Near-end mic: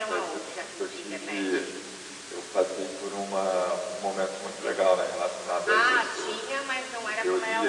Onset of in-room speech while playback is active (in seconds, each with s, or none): none